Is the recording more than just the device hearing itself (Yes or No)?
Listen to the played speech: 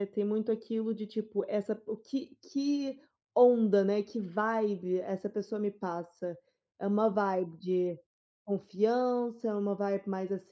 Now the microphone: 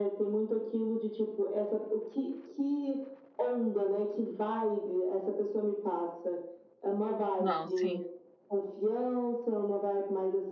Yes